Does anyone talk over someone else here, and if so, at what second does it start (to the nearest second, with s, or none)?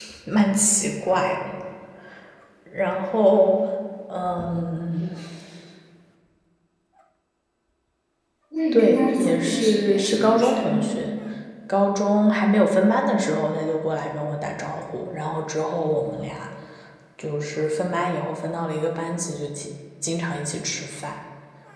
9 s